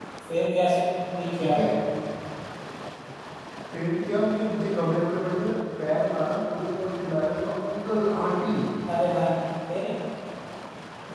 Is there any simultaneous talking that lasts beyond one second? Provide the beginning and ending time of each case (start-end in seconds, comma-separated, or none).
none